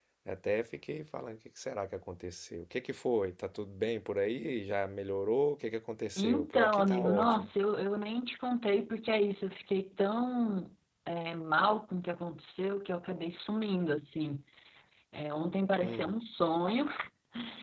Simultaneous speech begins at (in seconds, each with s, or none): 6.2 s